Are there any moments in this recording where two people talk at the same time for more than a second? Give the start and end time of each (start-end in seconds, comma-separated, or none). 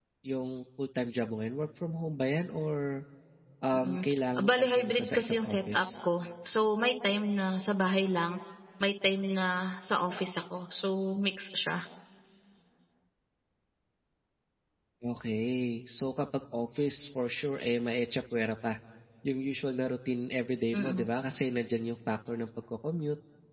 4.5-5.8